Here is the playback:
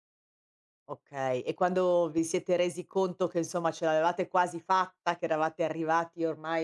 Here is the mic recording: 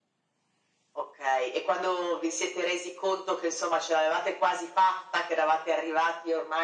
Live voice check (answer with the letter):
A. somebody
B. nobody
B